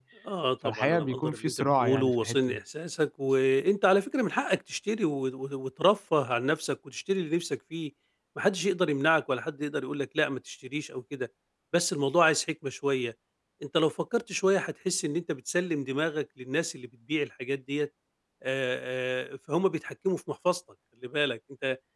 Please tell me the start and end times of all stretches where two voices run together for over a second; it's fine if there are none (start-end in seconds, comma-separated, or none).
0.6-2.6